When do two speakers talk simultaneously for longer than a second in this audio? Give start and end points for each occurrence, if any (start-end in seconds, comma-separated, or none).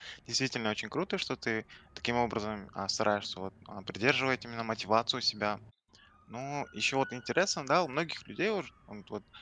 none